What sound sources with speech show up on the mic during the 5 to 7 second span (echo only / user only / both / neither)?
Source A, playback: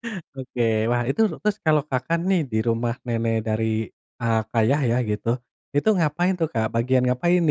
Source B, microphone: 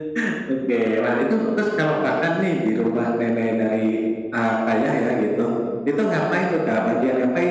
echo only